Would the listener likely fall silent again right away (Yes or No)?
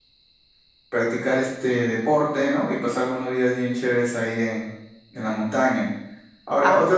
Yes